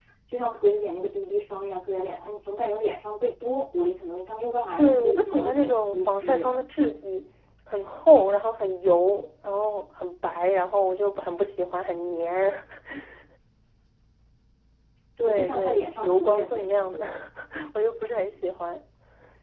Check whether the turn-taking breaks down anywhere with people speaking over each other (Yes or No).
Yes